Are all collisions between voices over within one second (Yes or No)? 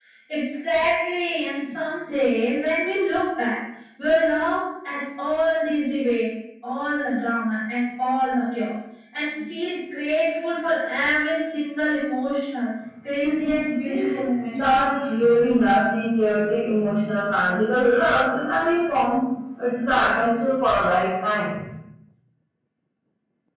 Yes